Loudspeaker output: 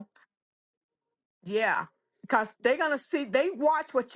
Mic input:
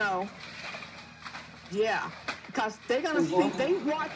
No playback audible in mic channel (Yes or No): No